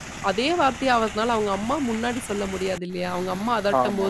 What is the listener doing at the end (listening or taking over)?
listening